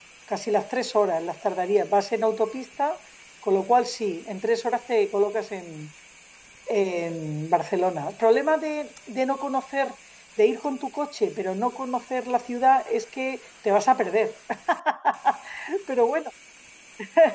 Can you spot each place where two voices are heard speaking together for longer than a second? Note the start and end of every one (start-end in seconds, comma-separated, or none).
none